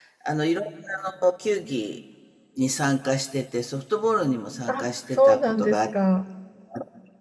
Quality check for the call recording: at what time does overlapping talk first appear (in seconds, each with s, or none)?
4.7 s